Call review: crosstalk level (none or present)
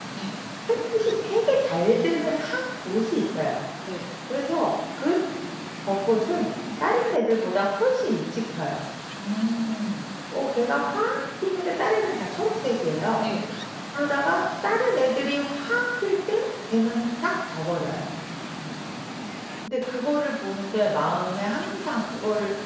none